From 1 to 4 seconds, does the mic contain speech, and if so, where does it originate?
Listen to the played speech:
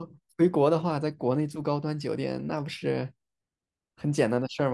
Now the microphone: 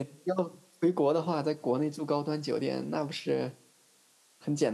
echo only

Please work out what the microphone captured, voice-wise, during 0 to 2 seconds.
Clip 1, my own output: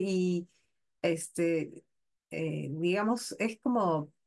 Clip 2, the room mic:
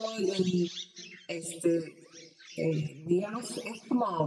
echo only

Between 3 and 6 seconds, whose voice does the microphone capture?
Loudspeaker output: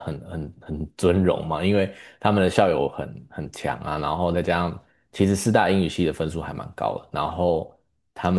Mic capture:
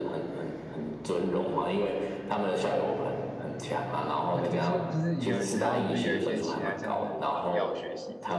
both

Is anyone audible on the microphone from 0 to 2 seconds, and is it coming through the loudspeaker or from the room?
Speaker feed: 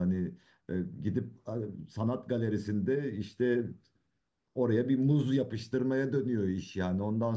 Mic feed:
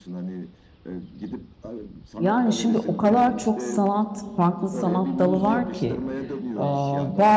echo only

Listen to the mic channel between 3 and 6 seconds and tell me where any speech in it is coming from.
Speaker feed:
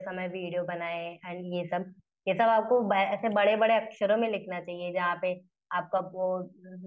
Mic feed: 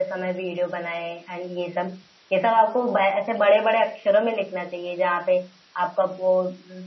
echo only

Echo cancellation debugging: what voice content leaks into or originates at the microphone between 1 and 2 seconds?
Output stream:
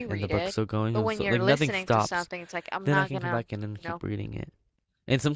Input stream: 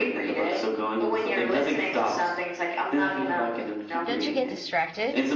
echo only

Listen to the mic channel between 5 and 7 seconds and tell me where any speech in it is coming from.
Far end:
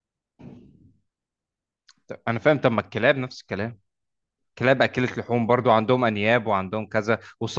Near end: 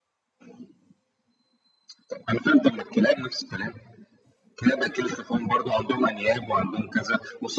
echo only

